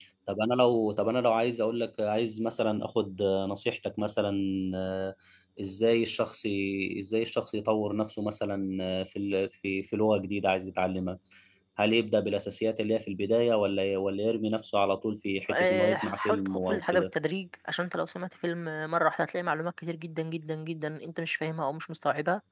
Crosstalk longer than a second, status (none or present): present